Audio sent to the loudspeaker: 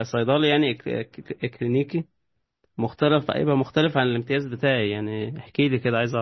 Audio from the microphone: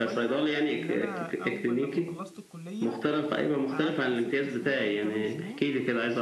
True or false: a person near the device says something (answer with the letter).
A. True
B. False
A